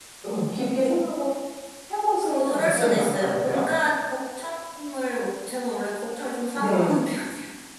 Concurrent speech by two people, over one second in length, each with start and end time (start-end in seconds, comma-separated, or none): 2.2-3.6